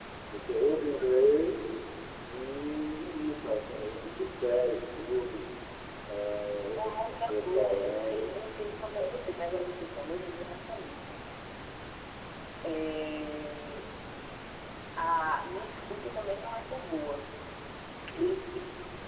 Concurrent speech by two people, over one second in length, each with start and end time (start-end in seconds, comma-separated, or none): 6.8-8.3